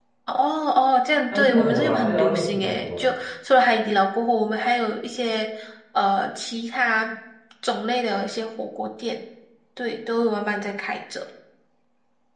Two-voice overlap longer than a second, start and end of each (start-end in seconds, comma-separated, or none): 1.3-3.1